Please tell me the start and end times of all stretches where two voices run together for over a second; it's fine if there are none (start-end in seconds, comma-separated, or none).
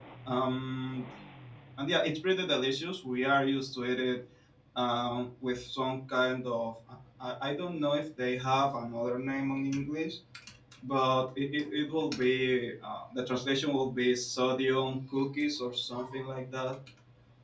none